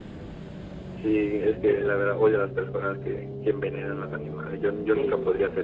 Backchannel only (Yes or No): No